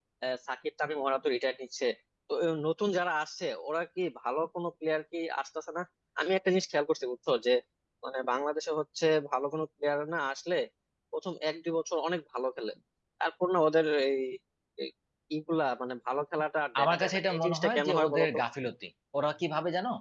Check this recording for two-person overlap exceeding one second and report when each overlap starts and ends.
16.8-18.4

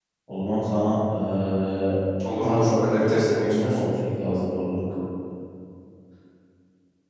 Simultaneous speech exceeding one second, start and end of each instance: 2.4-3.8

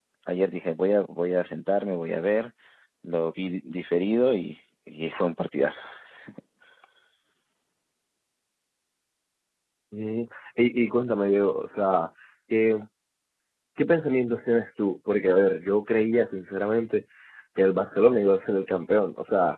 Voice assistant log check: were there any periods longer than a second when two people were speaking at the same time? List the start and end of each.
none

